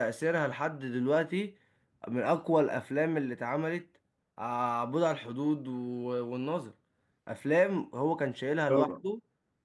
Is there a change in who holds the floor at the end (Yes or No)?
No